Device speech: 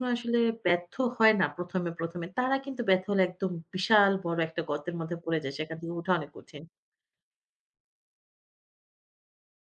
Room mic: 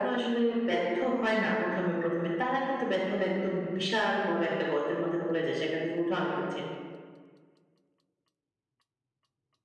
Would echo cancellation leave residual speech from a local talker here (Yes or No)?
No